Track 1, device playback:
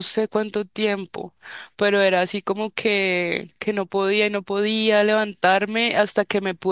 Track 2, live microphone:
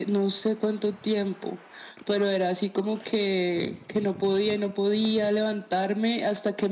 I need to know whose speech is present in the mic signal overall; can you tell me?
echo only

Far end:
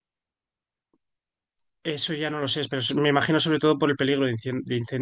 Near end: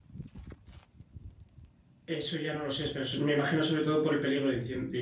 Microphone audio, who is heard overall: echo only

